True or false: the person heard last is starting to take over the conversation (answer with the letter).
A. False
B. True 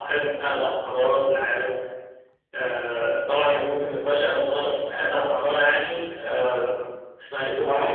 B